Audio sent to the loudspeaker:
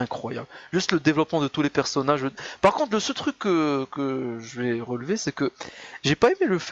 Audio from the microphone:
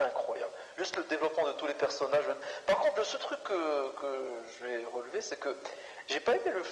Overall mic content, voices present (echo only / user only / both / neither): echo only